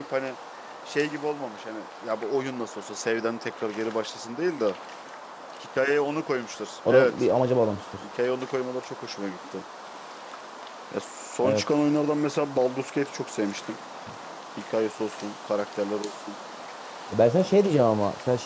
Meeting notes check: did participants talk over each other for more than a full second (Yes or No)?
No